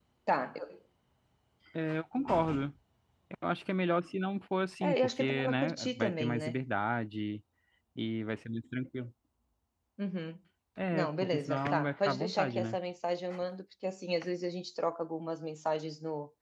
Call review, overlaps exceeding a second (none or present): present